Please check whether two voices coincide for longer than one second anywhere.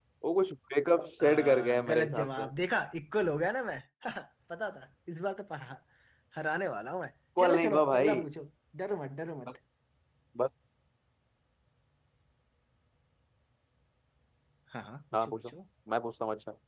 Yes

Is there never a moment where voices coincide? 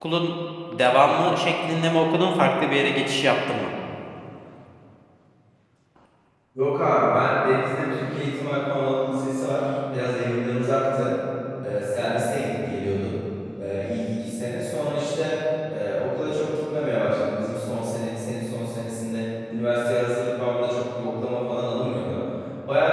Yes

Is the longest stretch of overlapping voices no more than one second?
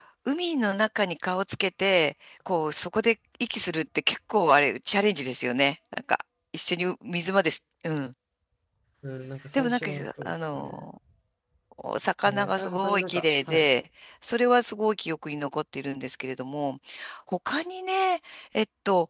No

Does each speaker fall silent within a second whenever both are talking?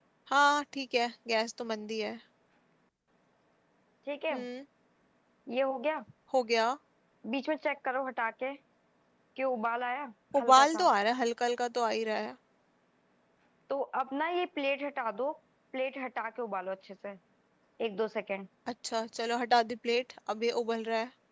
Yes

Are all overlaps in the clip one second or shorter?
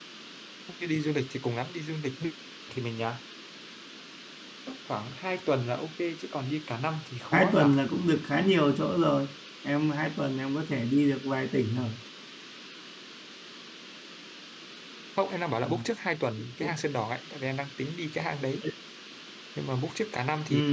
Yes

